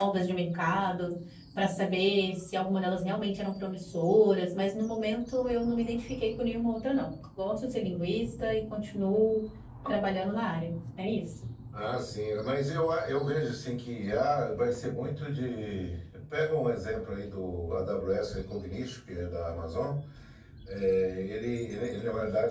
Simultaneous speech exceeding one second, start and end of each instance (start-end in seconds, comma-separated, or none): none